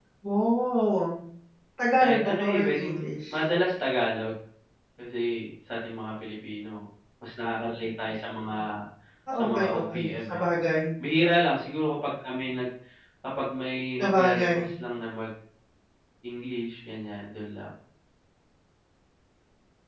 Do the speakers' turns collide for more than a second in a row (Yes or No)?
Yes